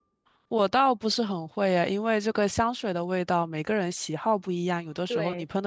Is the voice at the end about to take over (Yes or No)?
No